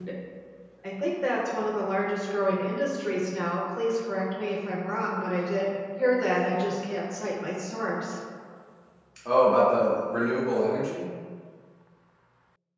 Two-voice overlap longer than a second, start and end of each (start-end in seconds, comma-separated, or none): none